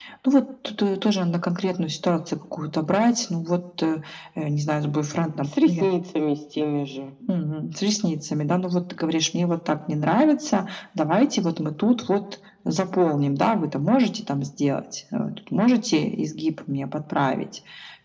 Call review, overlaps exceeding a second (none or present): none